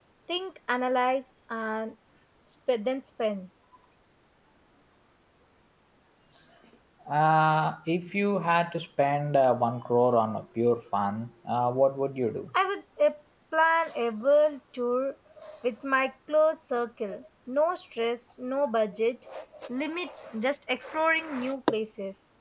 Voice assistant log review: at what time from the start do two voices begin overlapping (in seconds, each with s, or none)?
none